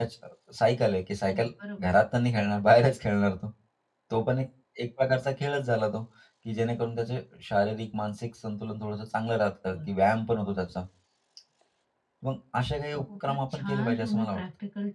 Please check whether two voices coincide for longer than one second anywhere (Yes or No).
Yes